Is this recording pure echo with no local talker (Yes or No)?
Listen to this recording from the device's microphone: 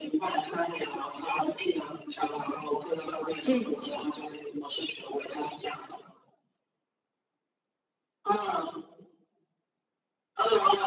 No